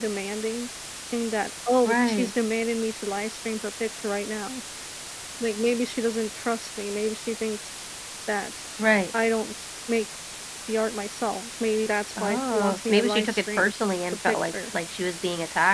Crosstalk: present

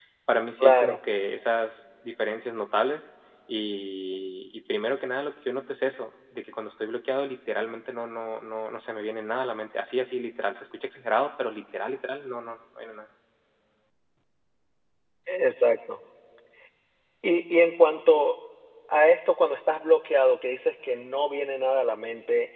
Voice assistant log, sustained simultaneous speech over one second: none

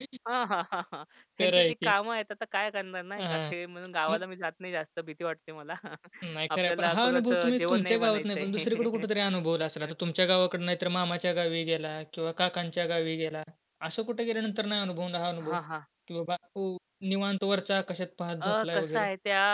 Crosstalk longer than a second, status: present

